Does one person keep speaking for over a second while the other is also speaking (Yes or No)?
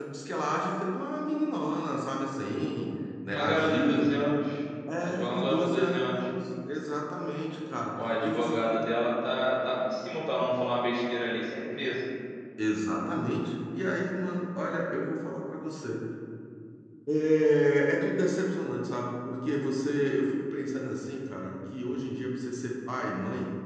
Yes